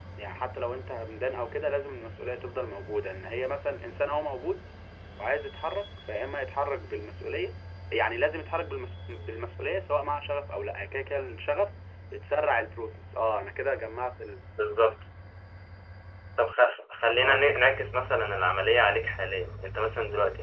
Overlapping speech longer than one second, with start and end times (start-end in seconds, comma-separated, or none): none